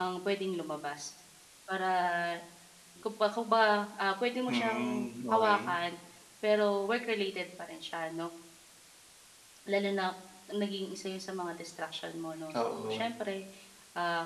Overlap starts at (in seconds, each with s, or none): 4.5 s